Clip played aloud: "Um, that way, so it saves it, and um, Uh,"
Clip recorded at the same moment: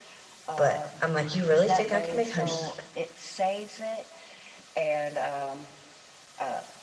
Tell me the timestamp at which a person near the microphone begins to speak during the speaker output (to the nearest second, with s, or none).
1 s